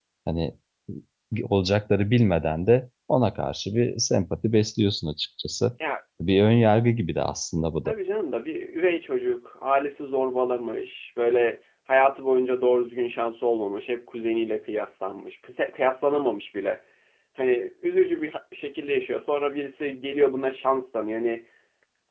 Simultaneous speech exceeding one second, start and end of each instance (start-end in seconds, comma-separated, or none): none